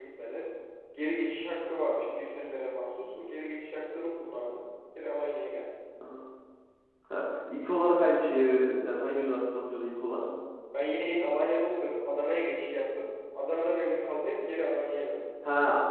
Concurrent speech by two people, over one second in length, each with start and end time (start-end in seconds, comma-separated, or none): none